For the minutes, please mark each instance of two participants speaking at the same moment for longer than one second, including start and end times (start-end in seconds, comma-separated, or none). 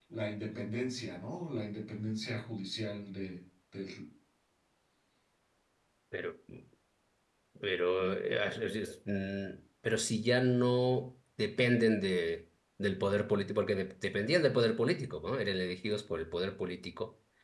none